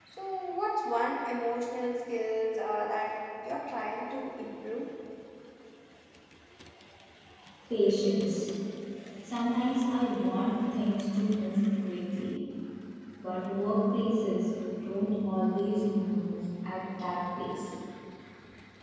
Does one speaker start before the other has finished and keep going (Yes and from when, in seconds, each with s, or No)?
No